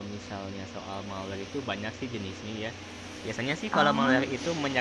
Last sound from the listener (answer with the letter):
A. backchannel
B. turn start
A